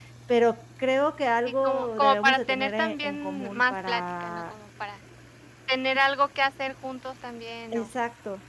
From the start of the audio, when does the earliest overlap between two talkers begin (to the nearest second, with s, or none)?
2 s